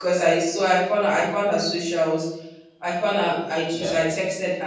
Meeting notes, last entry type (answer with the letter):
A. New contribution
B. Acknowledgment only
B